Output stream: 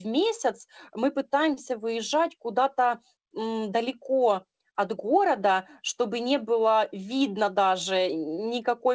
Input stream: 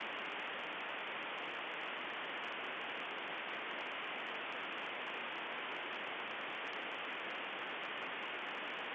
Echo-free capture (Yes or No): Yes